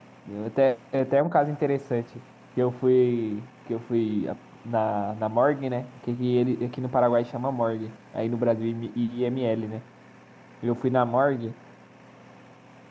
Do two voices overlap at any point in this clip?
No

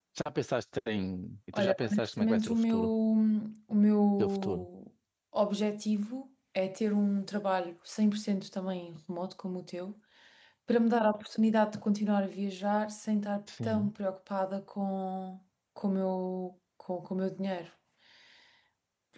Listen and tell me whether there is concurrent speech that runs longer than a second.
Yes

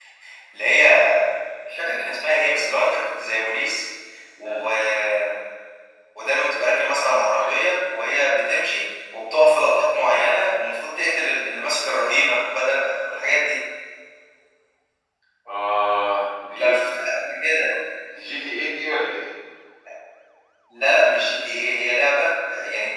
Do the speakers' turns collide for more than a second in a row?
No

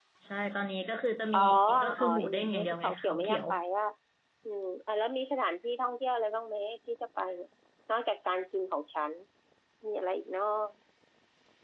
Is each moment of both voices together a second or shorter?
No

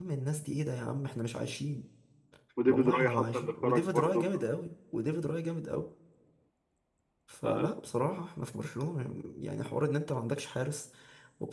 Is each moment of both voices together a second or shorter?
No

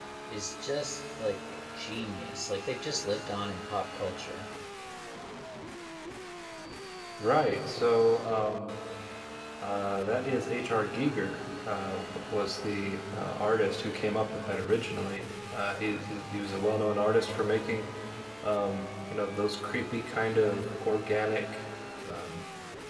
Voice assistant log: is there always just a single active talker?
Yes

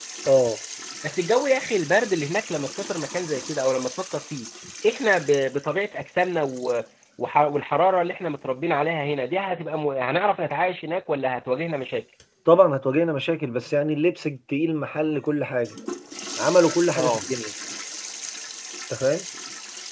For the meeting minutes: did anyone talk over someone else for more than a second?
No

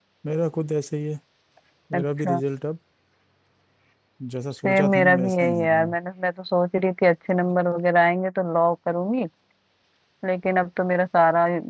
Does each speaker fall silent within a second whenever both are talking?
No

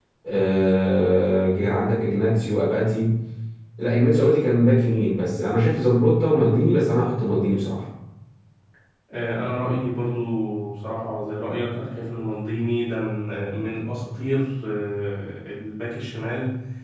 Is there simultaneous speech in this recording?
No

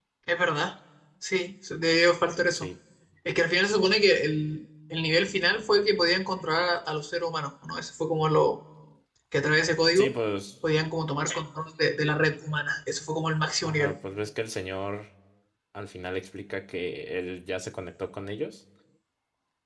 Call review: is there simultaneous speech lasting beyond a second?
No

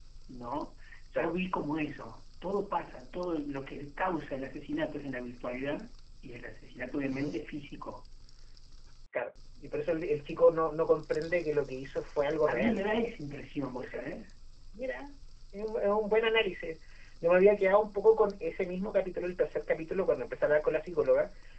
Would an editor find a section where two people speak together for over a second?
No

